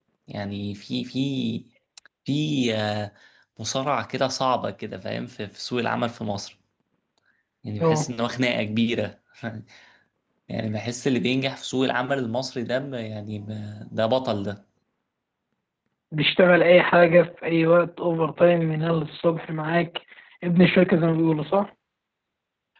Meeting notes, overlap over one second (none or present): none